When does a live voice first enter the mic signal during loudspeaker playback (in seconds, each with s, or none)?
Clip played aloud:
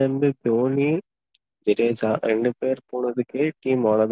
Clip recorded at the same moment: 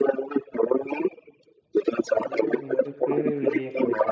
2.2 s